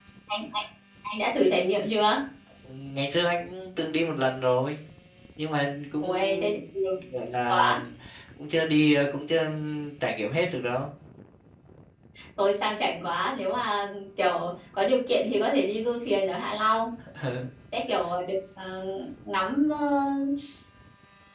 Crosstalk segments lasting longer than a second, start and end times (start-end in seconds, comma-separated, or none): none